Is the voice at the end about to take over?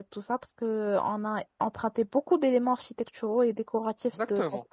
Yes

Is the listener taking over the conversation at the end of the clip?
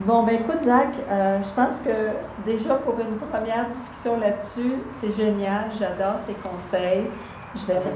No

